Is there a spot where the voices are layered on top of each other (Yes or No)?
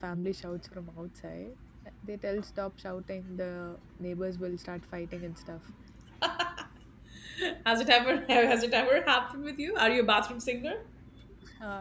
No